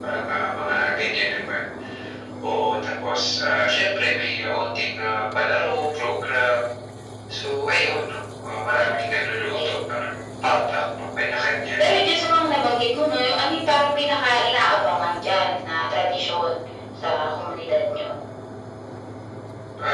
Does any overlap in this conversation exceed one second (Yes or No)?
No